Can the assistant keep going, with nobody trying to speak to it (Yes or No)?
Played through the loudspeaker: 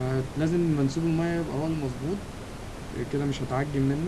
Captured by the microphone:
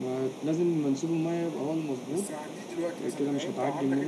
No